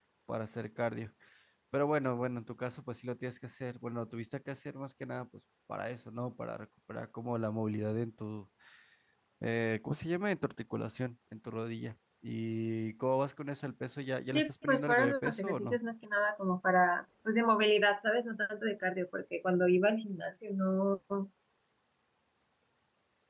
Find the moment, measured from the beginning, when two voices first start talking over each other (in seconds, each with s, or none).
14.3 s